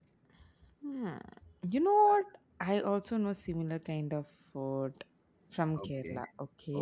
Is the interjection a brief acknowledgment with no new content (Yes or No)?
No